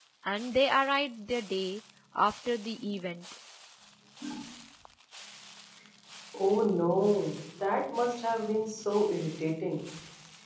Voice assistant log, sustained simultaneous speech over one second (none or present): none